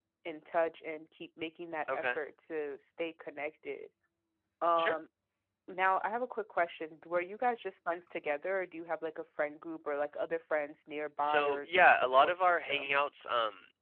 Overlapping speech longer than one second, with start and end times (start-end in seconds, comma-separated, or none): 11.2-12.9